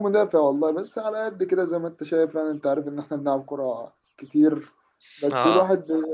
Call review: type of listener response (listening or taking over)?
listening